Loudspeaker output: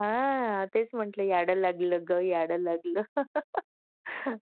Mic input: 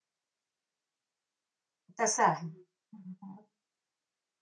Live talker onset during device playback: 2.0 s

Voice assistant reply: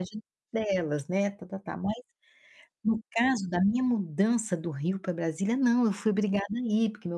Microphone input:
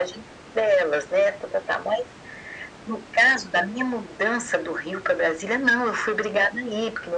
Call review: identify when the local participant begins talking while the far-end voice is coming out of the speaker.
none

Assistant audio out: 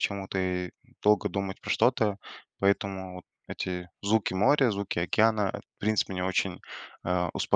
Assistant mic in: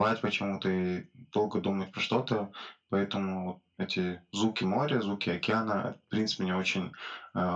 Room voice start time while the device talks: none

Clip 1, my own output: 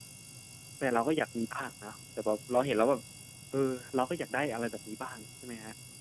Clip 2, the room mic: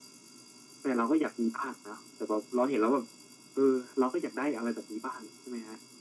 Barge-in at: none

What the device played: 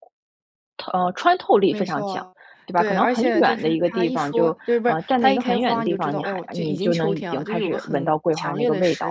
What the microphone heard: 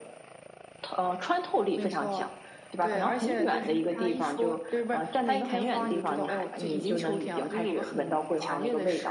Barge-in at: none

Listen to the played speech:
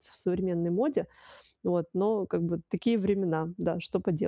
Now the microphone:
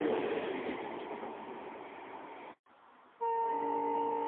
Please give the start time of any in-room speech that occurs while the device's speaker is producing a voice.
none

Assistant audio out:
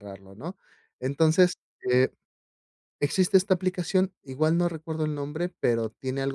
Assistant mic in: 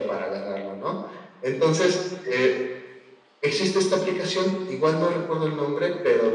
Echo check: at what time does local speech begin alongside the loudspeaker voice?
none

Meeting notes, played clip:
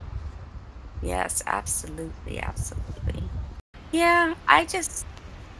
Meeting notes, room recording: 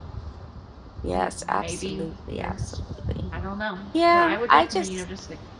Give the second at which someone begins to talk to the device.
1.1 s

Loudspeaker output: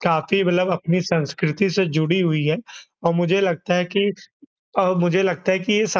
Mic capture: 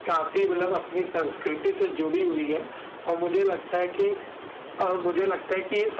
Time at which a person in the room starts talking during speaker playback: none

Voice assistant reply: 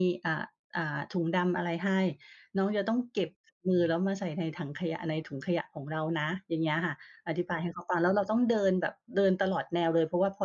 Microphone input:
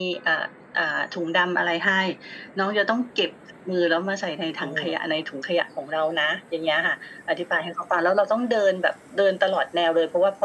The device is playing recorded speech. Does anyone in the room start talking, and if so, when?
4.6 s

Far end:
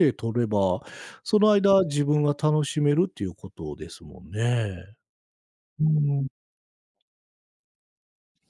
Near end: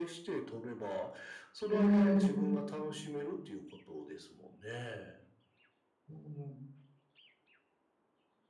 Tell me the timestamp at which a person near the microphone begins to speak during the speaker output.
1.7 s

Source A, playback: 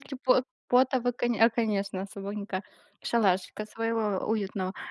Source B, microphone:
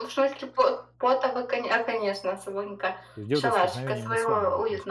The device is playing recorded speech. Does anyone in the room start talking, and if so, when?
3.1 s

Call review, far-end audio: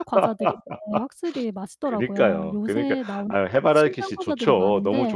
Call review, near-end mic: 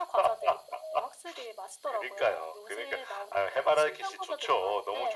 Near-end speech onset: none

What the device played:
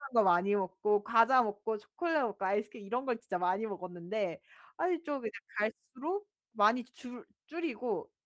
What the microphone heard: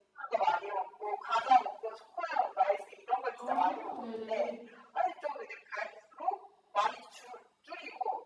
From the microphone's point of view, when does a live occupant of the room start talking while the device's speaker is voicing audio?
3.3 s

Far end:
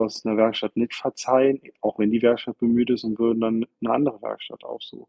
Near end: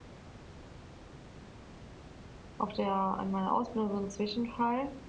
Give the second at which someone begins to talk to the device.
2.6 s

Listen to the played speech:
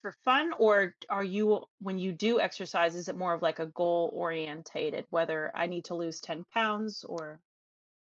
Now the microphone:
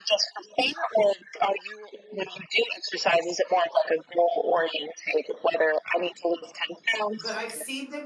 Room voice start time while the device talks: 7.1 s

